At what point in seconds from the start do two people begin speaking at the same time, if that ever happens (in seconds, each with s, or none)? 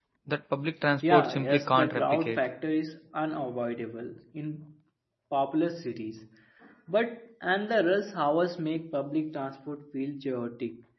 1.1 s